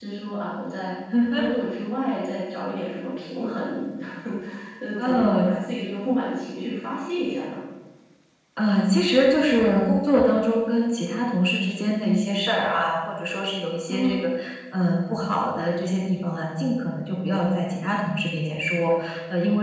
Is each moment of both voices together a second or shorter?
Yes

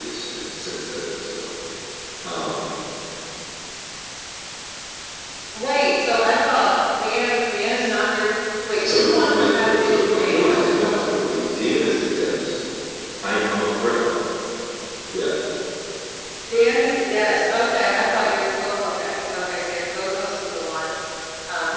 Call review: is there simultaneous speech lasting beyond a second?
Yes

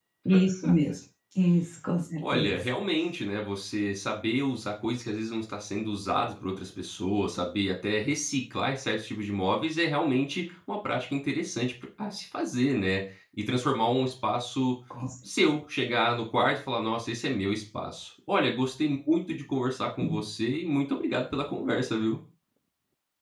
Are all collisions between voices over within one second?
Yes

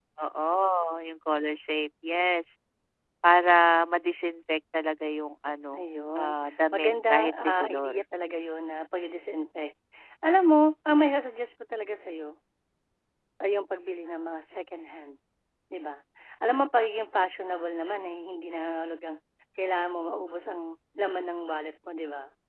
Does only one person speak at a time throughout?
No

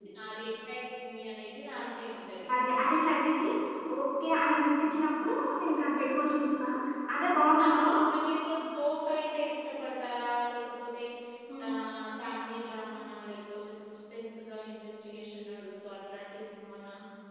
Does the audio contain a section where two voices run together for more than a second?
No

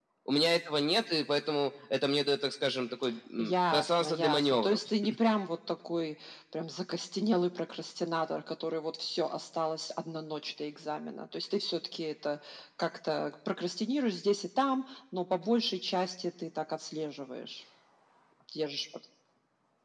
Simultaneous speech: Yes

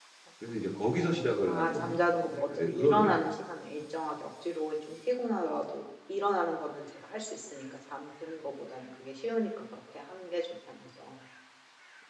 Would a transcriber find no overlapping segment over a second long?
No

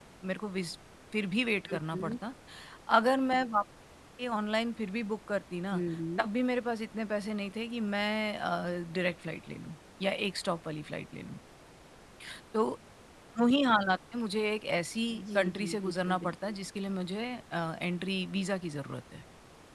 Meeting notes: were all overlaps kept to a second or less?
No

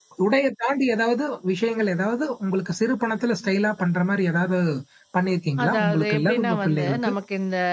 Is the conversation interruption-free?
No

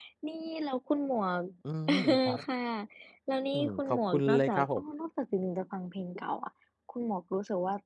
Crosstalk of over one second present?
Yes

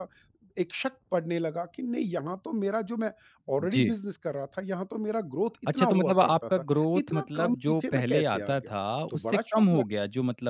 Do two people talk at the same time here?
Yes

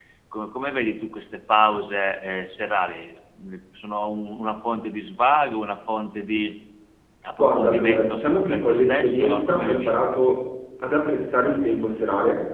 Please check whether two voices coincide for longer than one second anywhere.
Yes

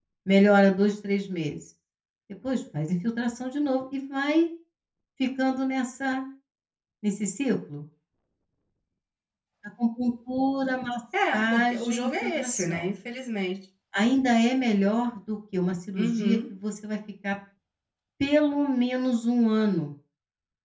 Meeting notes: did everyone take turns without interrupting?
No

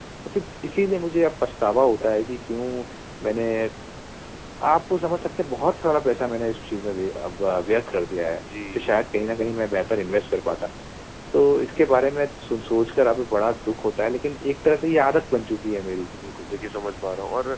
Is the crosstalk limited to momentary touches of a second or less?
Yes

